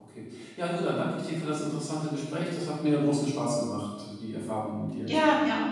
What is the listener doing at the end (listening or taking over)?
taking over